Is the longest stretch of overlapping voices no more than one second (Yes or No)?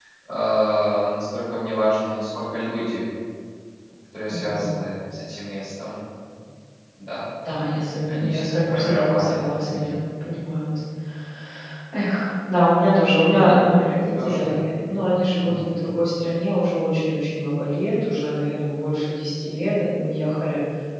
No